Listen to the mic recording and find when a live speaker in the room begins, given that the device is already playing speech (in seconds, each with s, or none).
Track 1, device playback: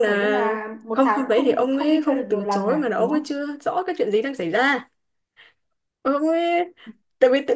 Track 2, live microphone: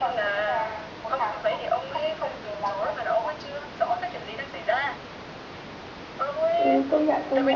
6.5 s